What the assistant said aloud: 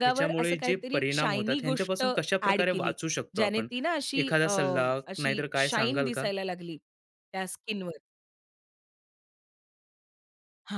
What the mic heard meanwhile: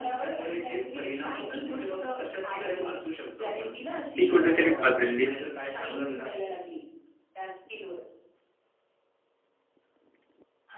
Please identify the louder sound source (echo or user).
user